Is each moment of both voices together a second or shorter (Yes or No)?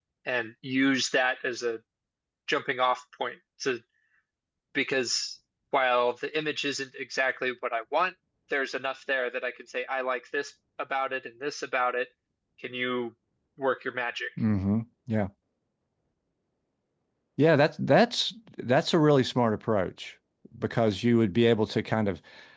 Yes